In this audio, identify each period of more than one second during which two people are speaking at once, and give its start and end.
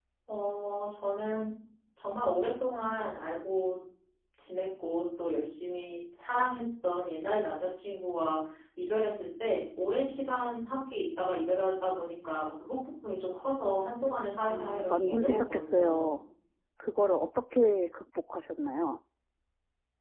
14.5-16.2

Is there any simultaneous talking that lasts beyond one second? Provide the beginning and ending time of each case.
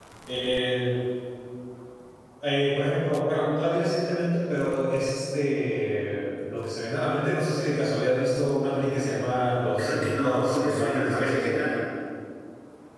9.8-11.5

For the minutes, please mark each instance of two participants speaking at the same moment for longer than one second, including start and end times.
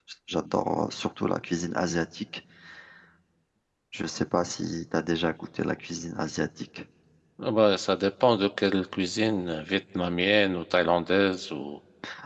none

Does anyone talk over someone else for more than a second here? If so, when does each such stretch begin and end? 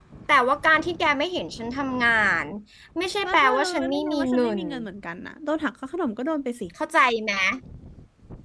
3.2-4.6

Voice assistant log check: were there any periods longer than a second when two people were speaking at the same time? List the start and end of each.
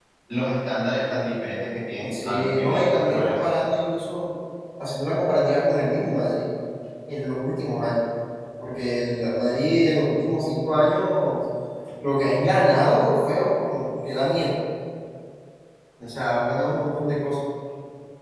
2.1-3.4

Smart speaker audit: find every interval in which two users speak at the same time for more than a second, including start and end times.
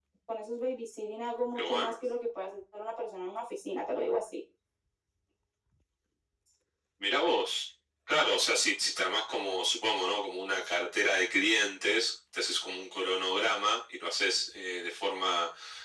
none

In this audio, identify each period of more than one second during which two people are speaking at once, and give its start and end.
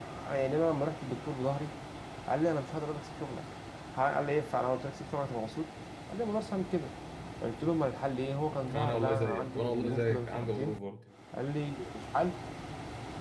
8.7-10.8

